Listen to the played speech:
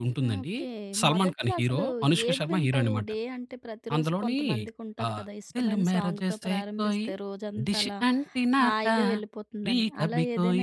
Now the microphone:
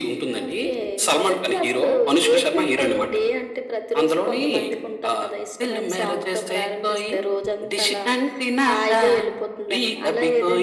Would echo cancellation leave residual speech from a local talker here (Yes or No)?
No